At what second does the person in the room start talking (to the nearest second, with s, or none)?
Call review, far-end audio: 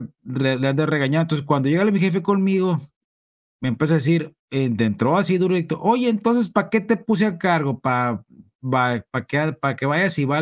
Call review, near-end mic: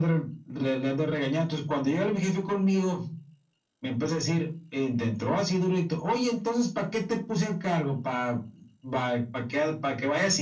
none